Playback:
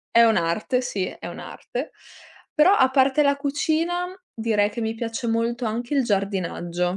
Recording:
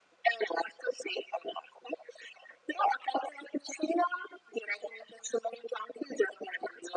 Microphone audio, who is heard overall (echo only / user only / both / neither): echo only